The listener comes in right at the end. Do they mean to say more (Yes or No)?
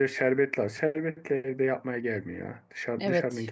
Yes